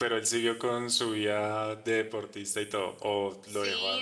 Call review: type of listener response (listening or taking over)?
taking over